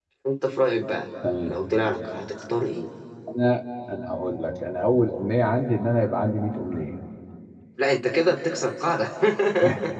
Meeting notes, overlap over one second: none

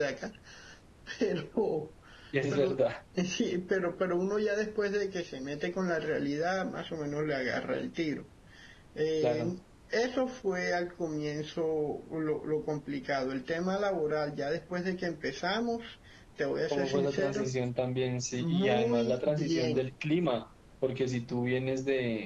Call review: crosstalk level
present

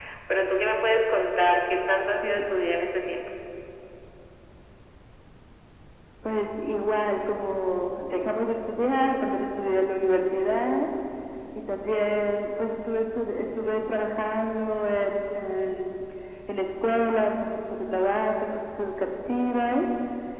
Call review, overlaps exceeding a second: none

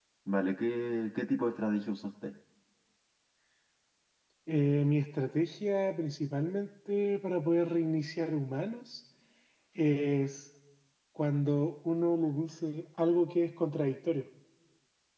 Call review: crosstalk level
none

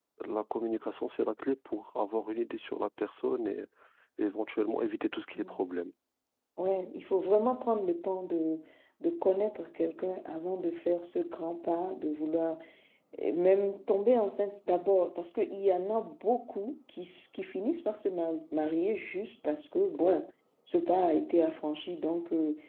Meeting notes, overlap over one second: none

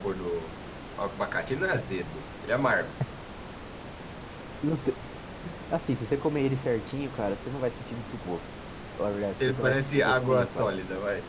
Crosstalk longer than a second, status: present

